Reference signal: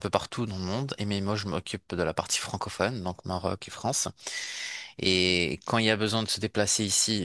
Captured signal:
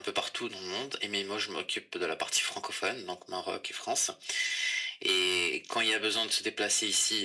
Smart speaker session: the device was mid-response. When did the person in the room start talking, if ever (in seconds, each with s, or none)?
none